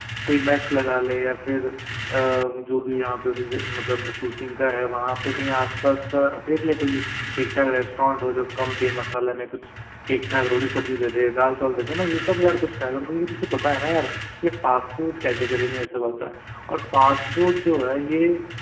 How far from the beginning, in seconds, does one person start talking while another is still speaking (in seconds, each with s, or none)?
none